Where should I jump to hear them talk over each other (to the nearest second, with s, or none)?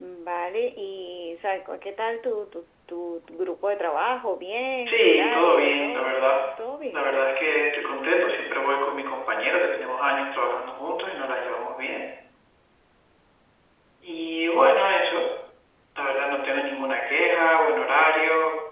5 s